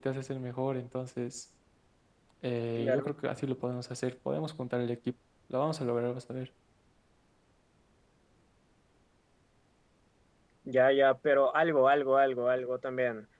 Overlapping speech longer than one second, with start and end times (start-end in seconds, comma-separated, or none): none